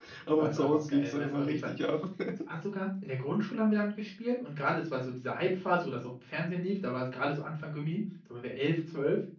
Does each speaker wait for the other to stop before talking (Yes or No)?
No